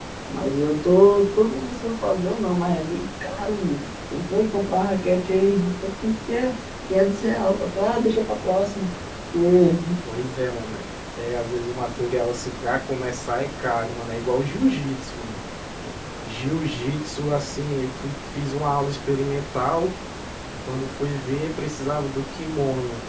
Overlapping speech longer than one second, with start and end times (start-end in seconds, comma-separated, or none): none